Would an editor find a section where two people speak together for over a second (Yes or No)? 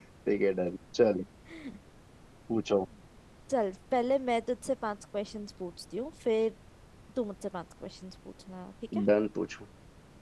No